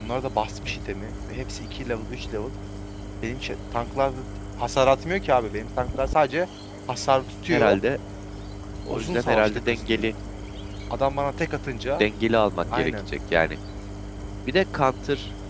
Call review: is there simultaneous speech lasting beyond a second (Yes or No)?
Yes